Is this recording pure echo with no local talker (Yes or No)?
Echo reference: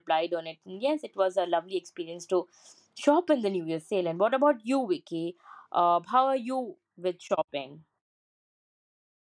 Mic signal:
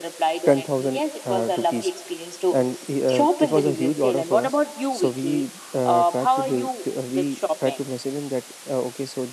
No